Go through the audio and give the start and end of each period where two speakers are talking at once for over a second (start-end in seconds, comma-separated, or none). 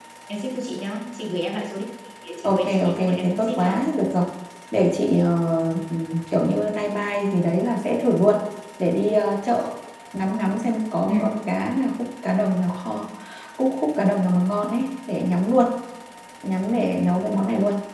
2.4-3.8